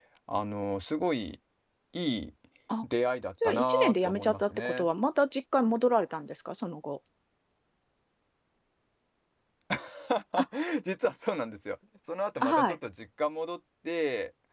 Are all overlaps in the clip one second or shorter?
No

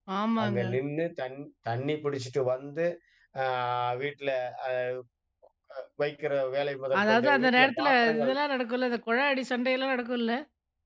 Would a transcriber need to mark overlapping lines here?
Yes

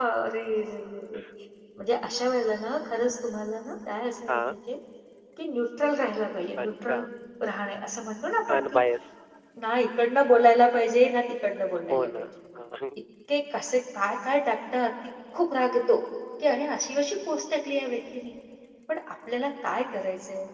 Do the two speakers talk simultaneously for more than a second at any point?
No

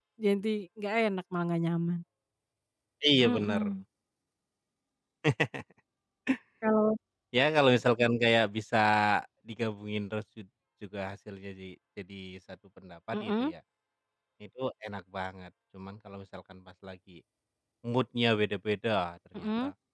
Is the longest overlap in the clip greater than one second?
No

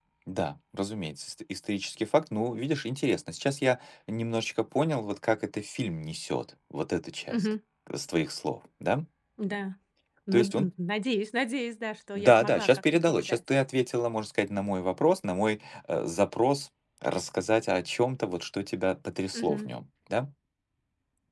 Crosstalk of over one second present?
Yes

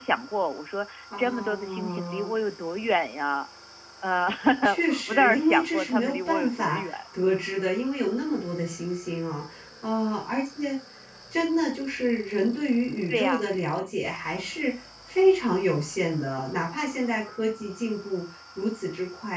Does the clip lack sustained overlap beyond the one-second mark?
No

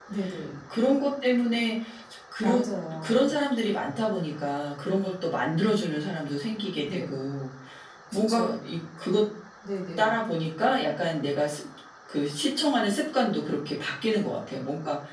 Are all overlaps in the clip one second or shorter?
Yes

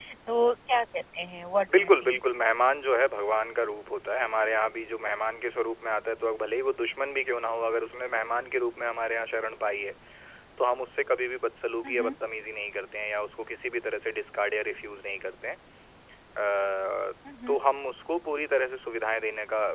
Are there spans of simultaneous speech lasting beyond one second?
No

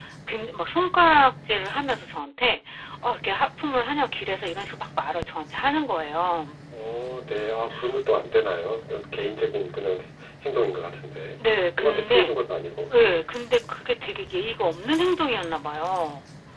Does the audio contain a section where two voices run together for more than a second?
No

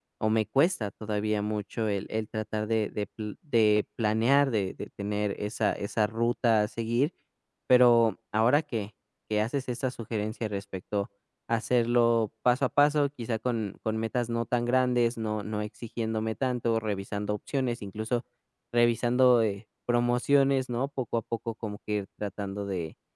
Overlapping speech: No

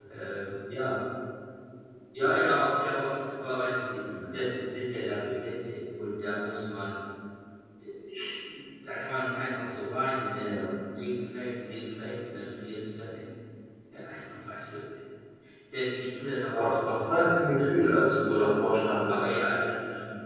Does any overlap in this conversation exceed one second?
Yes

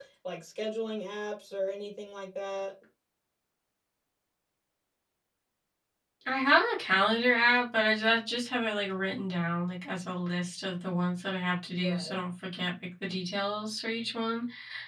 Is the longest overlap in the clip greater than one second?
No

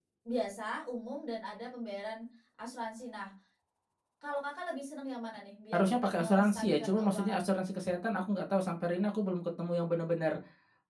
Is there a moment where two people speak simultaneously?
Yes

